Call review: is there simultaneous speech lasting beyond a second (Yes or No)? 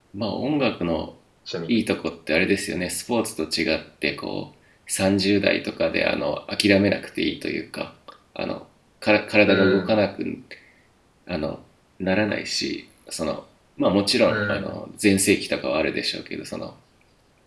No